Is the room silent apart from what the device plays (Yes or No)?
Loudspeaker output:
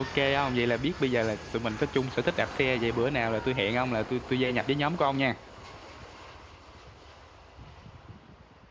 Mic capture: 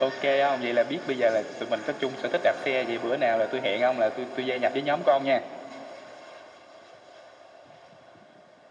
Yes